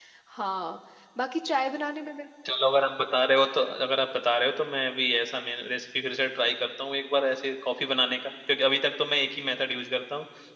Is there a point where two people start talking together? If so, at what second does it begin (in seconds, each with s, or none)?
none